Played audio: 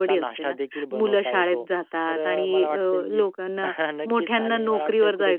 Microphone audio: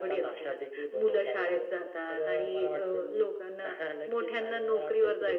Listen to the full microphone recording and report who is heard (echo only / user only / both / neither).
echo only